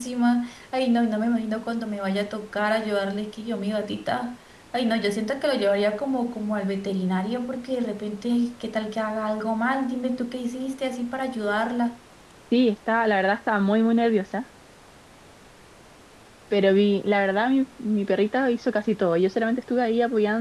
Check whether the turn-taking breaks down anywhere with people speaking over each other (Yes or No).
No